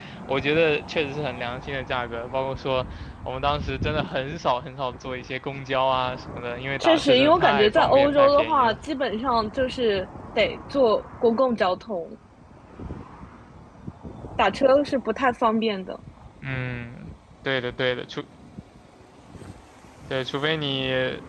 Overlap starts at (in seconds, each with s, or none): 6.8 s